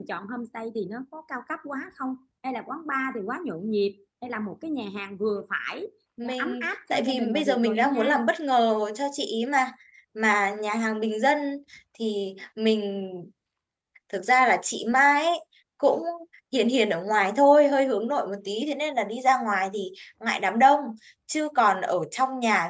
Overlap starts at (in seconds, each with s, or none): 6.2 s